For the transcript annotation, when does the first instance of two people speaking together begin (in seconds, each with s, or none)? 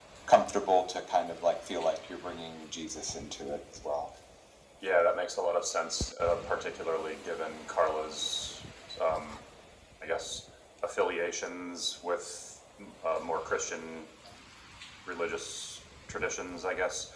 none